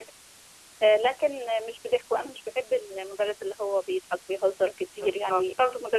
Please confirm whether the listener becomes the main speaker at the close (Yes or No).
No